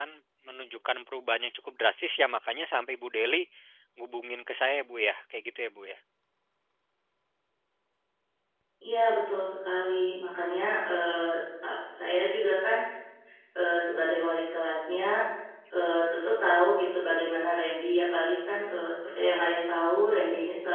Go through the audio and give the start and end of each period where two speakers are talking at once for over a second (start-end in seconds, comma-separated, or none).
none